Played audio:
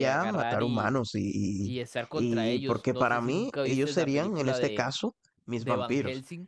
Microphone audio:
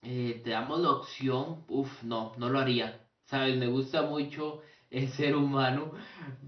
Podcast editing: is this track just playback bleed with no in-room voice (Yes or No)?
No